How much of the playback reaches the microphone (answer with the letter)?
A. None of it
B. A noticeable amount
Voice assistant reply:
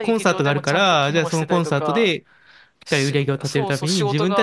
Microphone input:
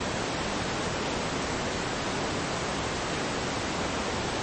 A